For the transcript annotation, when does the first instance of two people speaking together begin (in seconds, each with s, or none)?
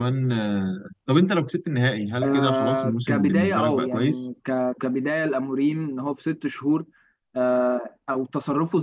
2.2 s